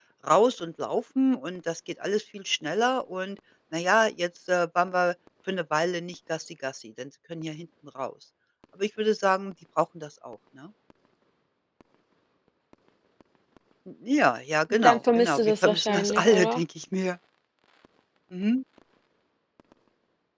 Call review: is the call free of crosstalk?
No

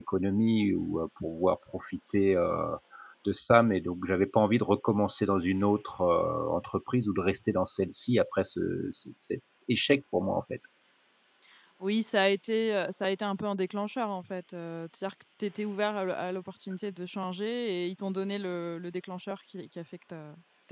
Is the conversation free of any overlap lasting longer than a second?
Yes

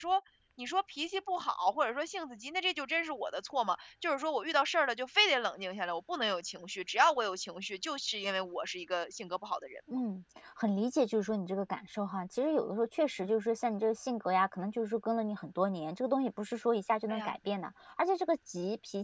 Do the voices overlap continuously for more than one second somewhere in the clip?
No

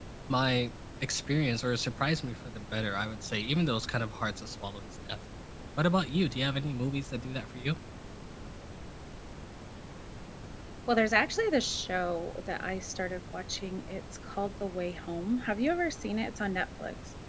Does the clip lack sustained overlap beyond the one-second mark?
Yes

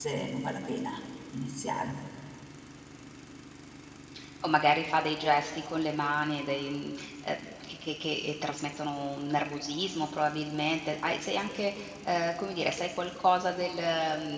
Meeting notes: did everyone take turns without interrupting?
Yes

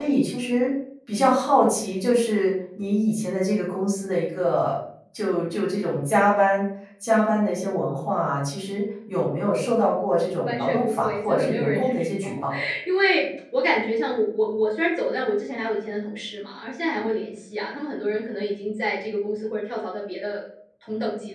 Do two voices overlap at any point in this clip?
Yes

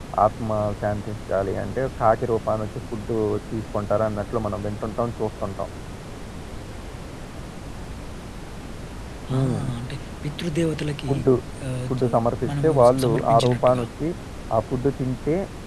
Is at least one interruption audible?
Yes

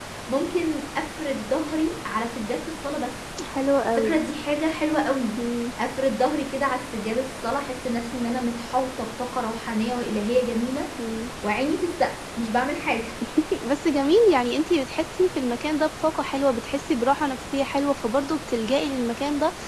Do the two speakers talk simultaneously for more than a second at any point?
No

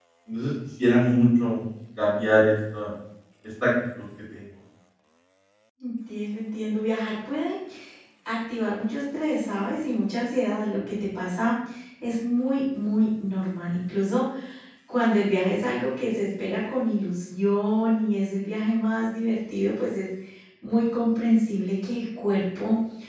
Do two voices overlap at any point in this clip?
No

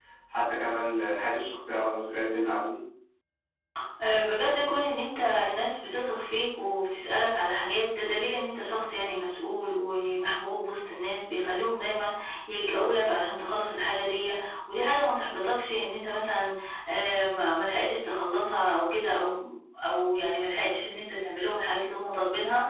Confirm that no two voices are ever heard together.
Yes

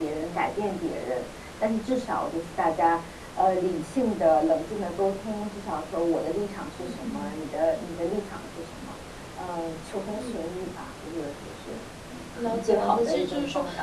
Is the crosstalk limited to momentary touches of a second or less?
No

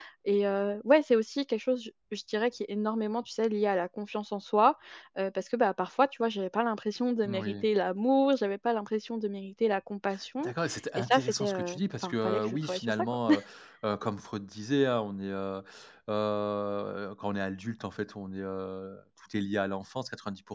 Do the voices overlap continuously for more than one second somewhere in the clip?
Yes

